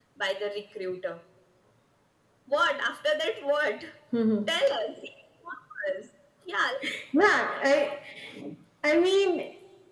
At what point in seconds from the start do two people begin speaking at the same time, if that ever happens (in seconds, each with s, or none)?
none